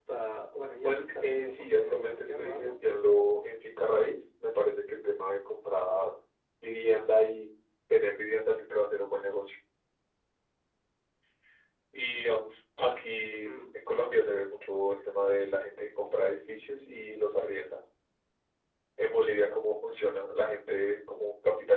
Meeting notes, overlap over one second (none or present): present